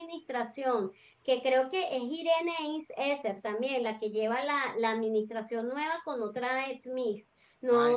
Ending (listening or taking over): taking over